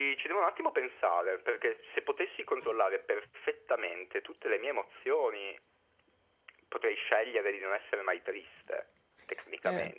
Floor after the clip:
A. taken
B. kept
A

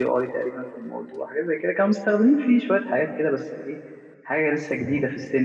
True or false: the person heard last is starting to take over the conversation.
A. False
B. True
A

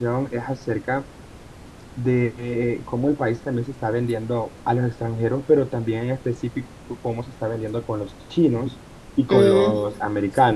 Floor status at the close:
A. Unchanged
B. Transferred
A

